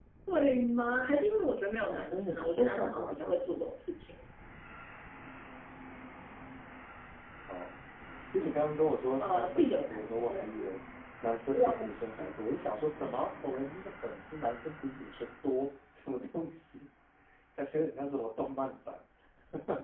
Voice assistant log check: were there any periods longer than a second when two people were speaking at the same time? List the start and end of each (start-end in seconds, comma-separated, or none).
1.9-3.7, 9.2-10.6